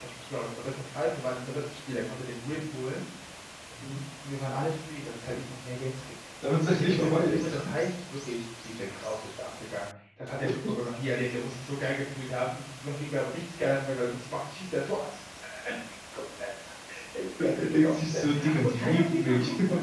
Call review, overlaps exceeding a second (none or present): present